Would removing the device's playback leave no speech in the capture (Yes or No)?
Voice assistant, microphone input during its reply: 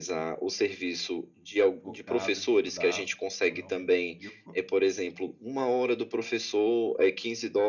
No